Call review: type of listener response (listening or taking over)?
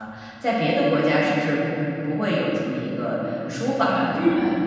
taking over